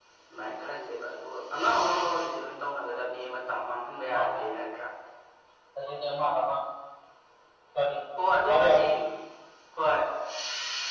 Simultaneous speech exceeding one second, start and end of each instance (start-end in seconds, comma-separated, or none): none